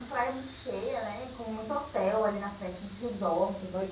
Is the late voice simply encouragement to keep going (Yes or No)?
No